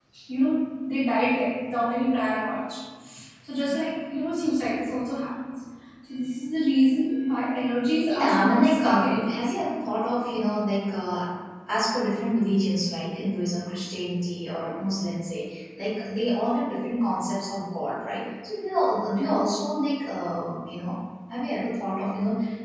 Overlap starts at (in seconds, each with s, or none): 8.1 s